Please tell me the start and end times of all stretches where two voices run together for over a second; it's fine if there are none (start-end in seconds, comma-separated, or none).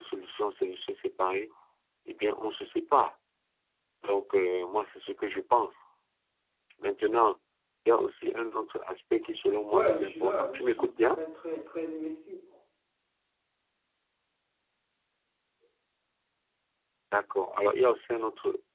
9.7-11.2